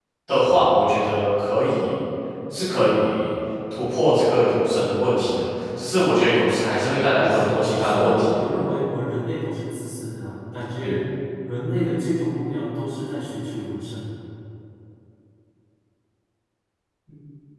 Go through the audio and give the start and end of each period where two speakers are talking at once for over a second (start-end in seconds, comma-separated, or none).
7.2-8.4